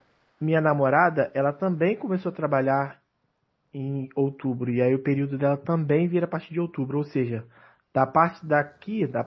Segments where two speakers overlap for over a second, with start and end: none

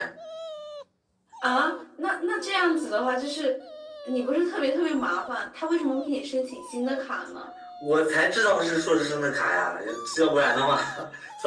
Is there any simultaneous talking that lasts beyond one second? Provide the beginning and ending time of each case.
none

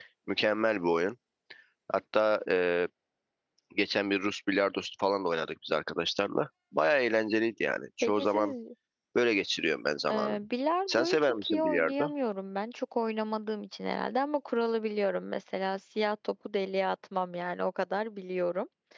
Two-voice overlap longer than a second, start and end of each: 10.9-12.1

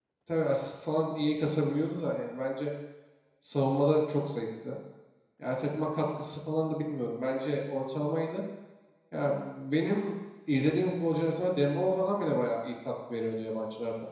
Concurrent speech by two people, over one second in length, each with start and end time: none

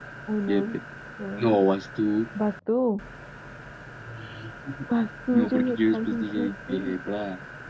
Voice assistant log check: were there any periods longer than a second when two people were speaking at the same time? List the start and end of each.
5.3-7.0

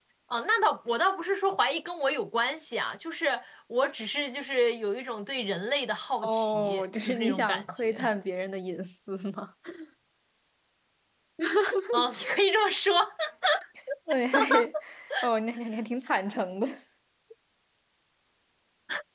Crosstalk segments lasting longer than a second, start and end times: 6.2-8.0

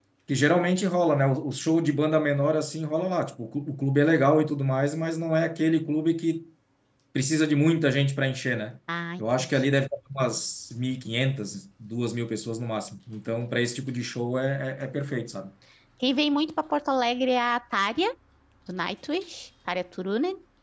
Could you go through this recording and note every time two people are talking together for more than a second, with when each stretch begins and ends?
none

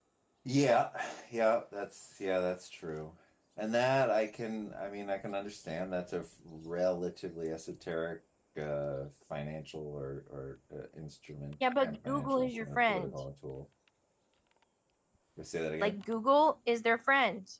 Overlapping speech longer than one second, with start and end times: 11.8-13.1

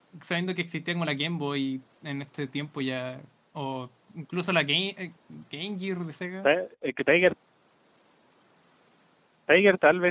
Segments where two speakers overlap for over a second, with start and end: none

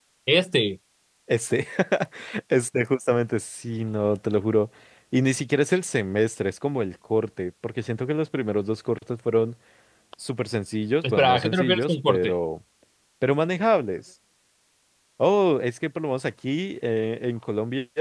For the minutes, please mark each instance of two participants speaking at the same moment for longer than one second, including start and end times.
11.0-12.3

